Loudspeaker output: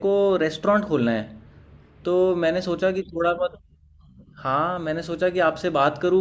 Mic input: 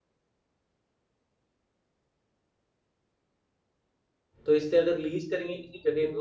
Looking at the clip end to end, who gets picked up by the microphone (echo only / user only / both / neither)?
user only